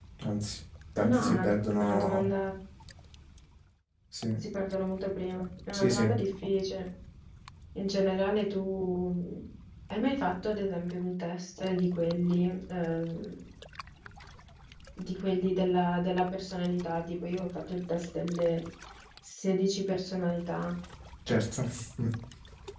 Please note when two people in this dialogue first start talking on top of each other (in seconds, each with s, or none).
1.0 s